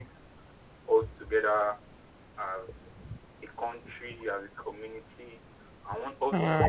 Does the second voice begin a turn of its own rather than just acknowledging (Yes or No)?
No